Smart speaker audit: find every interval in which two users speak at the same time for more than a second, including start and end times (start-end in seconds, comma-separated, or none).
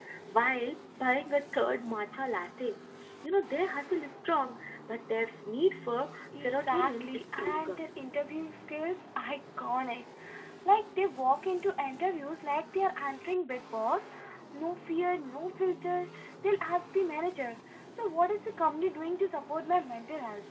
6.3-7.8